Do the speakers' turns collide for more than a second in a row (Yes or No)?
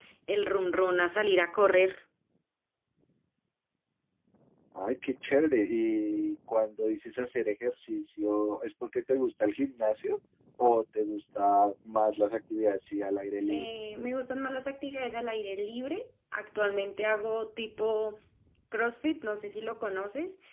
No